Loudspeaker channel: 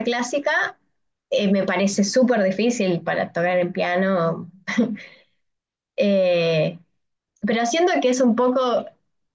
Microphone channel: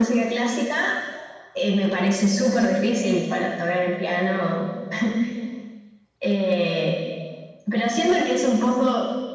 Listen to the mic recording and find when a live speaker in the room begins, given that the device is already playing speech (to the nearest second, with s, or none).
none